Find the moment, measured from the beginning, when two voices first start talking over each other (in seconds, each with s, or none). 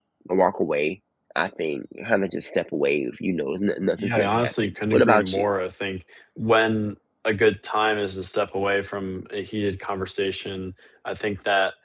4.0 s